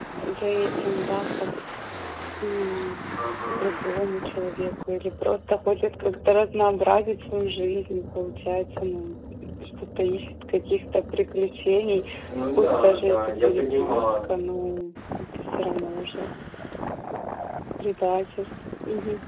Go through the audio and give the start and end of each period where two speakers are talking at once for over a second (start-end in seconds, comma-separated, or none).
12.6-14.3